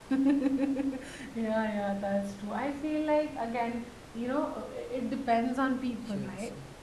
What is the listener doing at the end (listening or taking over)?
taking over